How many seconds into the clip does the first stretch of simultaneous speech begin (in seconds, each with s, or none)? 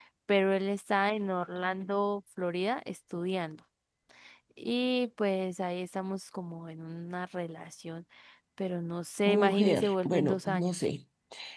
9.2 s